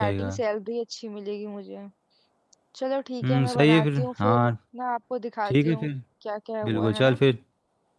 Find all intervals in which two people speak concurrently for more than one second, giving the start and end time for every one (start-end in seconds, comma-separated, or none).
3.2-4.5